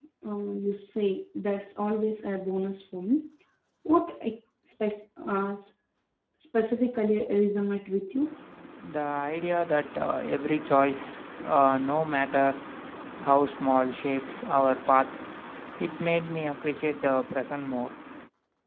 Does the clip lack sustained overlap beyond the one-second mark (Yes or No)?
Yes